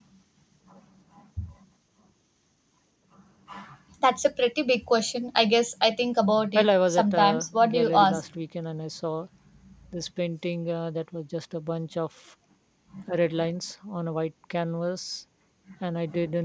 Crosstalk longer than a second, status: present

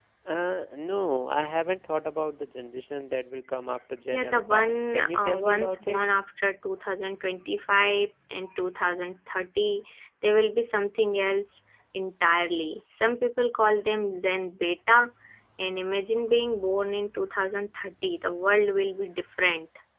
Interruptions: present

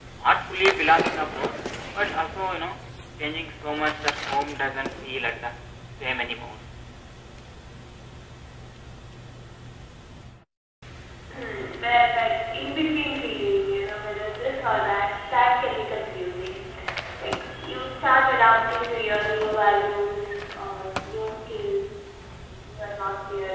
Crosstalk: none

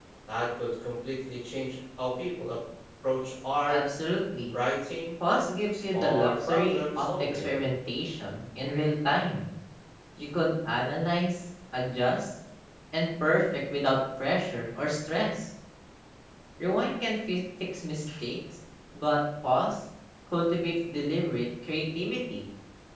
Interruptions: present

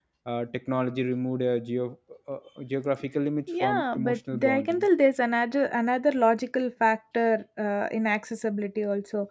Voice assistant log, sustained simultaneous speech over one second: present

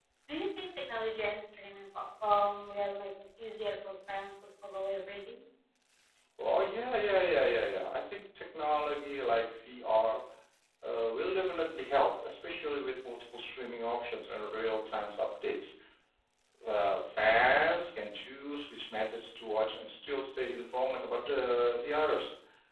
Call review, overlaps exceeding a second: none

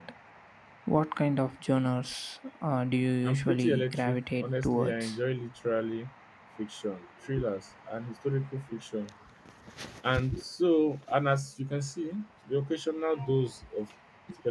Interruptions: present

